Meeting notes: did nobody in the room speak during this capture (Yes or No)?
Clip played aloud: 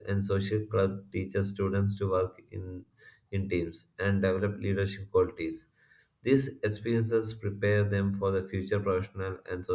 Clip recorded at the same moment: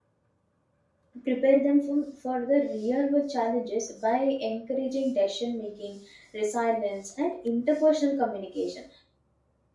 No